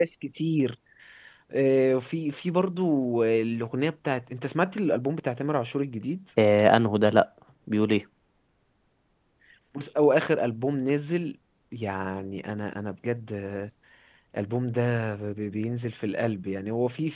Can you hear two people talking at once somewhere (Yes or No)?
No